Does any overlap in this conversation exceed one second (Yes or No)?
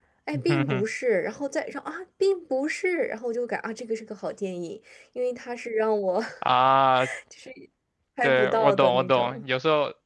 Yes